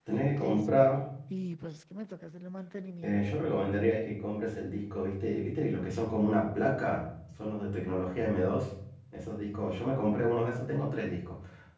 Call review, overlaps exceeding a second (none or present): none